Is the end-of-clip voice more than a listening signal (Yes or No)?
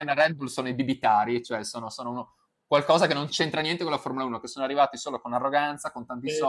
No